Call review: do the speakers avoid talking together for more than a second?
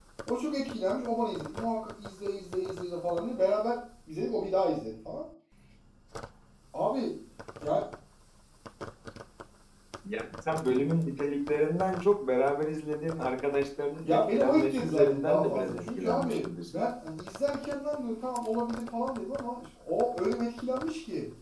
No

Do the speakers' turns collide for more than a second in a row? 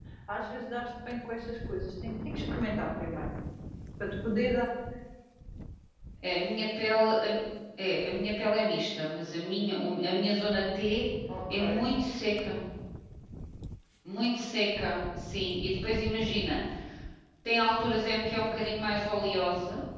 No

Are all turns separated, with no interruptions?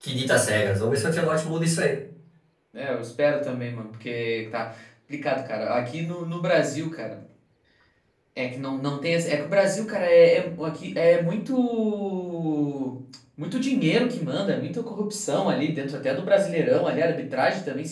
Yes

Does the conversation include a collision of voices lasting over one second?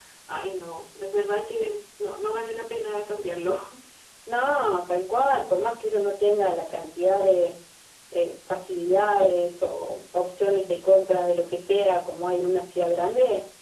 No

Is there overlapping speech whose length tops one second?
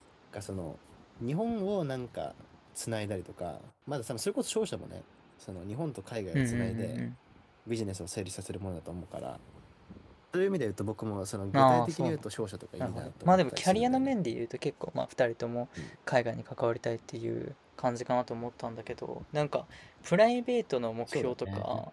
Yes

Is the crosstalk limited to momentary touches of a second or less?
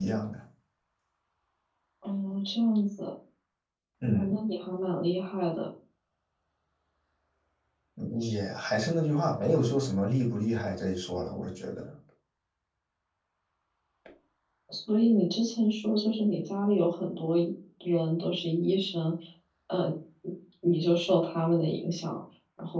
Yes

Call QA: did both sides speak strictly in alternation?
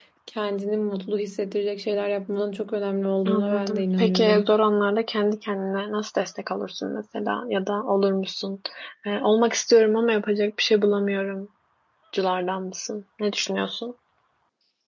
No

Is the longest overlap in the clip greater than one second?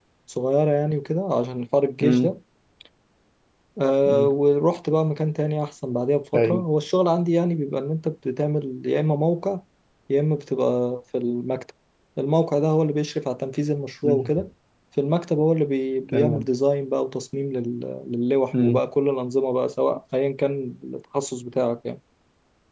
No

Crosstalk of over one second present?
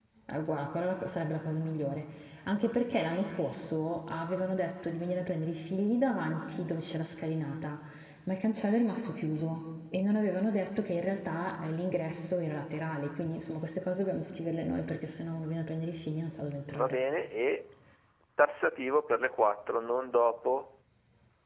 No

